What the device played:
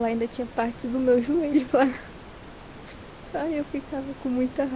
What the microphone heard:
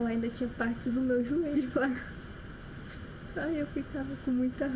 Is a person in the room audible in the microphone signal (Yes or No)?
No